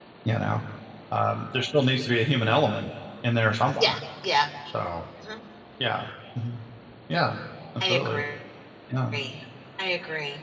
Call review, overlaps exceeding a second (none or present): none